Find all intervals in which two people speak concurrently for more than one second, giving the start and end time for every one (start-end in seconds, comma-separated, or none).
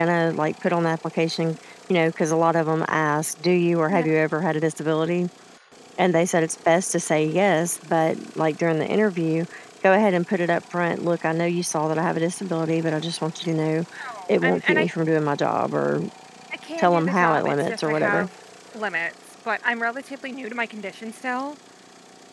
16.8-18.3